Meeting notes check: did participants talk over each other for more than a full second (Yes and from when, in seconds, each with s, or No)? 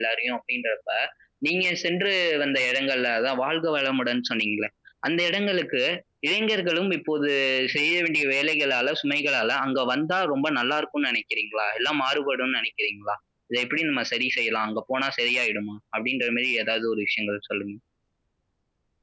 No